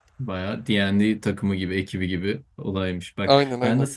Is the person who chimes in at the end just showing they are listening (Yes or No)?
Yes